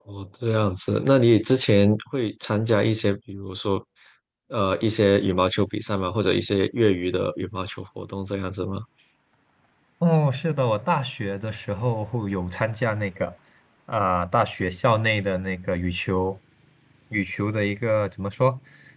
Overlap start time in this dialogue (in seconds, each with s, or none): none